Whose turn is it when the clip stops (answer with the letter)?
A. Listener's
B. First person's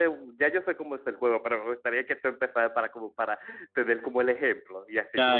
A